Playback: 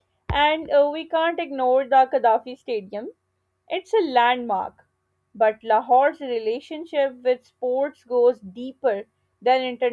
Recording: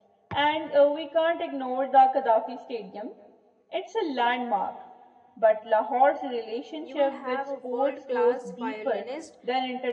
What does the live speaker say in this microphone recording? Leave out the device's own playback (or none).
You will have a world class violinist